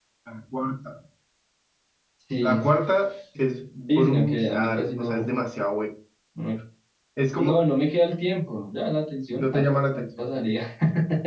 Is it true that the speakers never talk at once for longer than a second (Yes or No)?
No